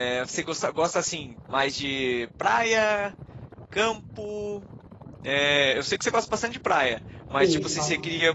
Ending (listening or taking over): listening